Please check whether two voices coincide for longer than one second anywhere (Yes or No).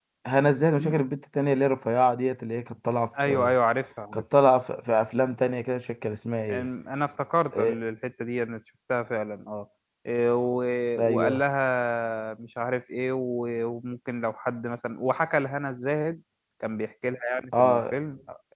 No